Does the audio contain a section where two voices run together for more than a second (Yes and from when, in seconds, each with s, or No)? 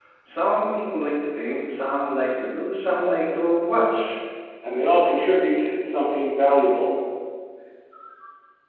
No